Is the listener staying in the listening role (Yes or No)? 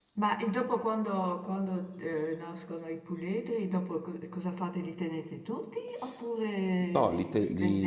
No